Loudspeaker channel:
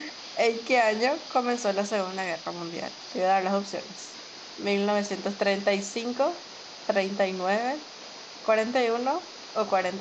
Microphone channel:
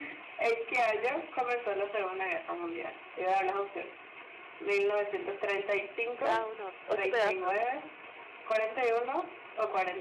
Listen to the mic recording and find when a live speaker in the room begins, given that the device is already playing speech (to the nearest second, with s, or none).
6 s